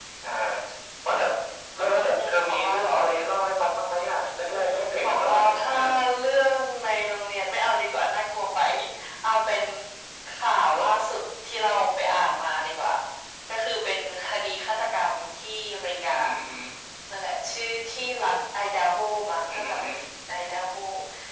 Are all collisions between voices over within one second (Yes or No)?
No